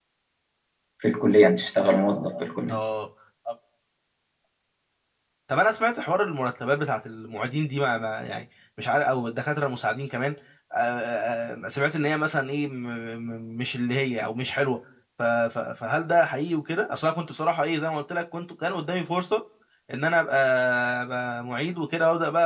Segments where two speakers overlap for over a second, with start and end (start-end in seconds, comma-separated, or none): none